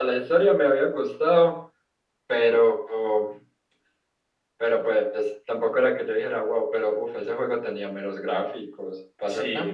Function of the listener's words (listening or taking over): taking over